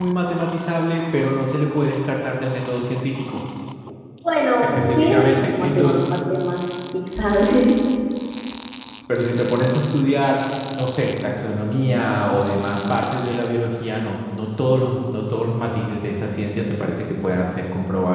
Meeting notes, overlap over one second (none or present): present